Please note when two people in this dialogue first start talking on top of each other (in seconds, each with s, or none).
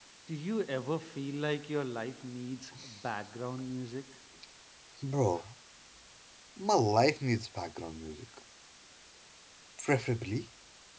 none